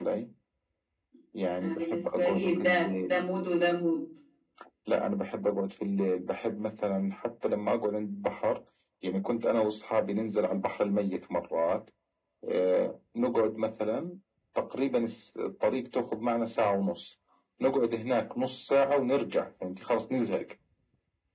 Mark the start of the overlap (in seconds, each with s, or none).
1.6 s